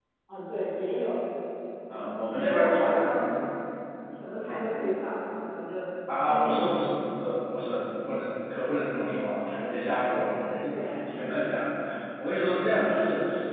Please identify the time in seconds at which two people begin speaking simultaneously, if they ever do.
1.9 s

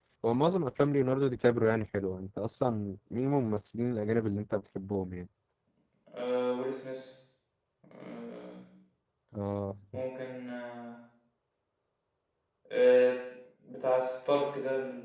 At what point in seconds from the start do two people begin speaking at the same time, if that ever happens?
none

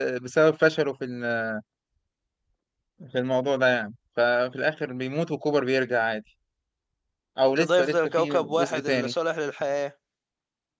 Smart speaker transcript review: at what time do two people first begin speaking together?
7.6 s

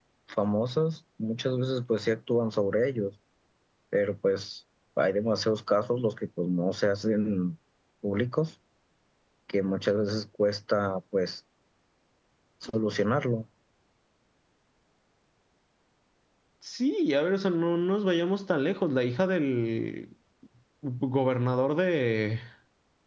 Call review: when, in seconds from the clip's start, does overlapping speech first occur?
none

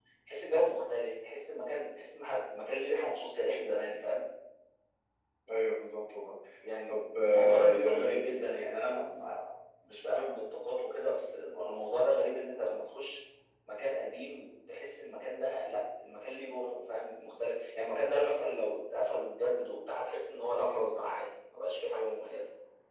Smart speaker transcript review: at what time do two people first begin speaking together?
6.9 s

